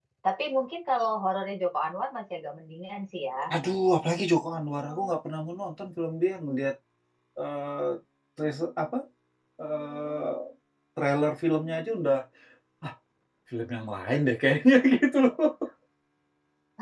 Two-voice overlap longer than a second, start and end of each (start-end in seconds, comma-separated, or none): none